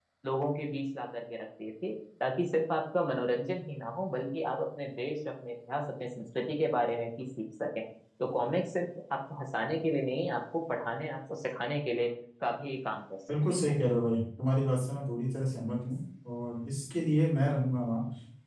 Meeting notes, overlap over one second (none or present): none